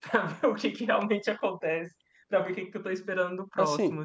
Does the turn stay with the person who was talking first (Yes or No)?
No